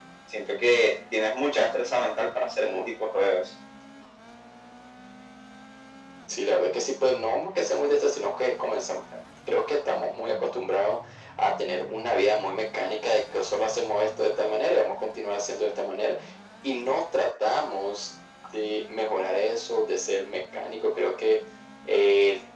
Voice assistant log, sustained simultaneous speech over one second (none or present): none